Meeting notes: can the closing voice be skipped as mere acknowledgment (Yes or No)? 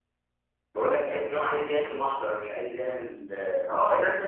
No